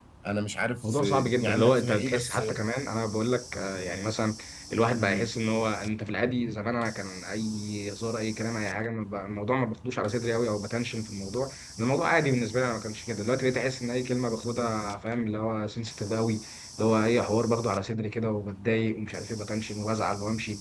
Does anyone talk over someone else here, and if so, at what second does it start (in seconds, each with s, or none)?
0.8 s